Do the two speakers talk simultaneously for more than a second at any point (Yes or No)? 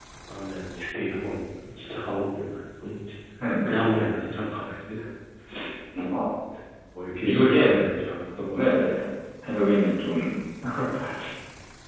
No